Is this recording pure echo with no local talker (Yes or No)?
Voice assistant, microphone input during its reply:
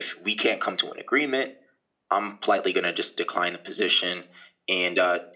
Yes